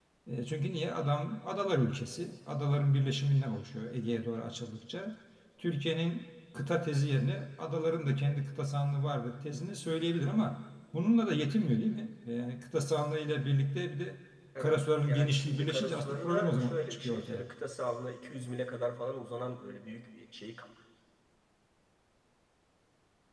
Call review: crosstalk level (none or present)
present